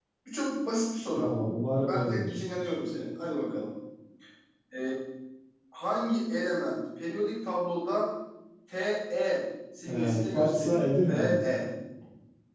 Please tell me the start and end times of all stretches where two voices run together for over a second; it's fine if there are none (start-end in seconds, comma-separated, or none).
9.8-11.4